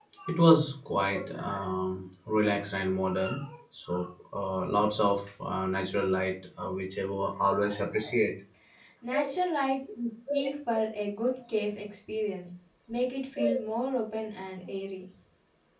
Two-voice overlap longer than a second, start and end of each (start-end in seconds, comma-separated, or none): none